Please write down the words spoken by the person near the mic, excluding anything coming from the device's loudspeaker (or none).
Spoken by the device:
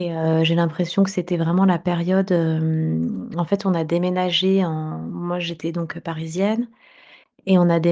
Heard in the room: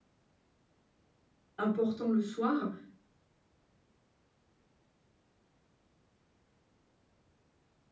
importants le soir,